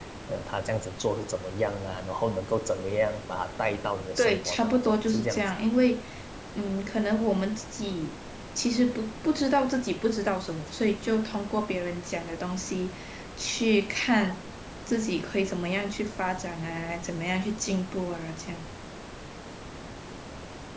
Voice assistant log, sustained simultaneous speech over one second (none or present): present